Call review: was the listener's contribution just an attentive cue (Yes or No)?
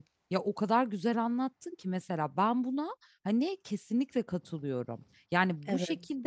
Yes